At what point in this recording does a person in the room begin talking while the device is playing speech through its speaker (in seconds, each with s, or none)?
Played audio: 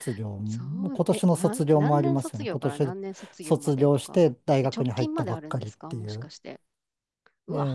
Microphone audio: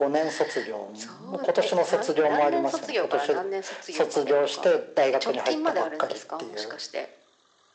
none